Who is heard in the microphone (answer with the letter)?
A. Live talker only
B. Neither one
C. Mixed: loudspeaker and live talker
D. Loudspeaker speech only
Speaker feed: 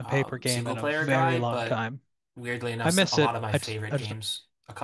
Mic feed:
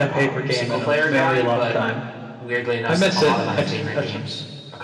D